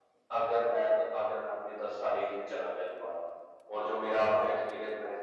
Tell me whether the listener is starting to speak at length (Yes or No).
No